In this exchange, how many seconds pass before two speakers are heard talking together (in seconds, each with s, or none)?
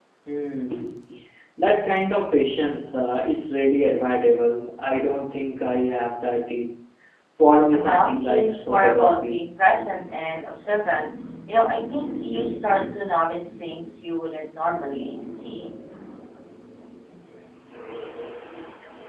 7.7 s